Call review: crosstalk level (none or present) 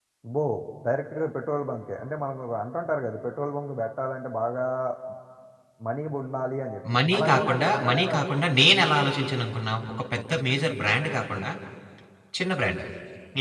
present